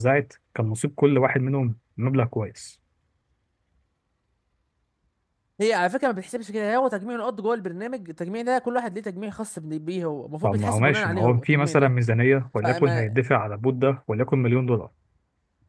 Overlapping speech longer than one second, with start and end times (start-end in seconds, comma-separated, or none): 10.4-11.9